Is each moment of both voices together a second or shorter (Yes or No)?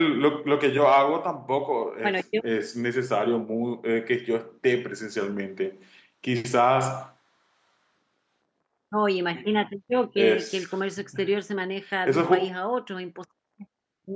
Yes